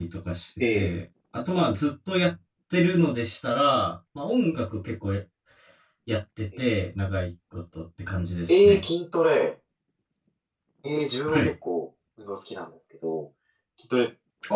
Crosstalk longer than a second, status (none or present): none